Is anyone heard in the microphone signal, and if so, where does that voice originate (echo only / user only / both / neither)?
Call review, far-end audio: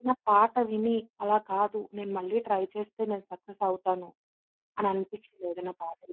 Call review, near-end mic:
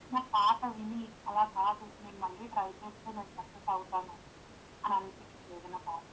echo only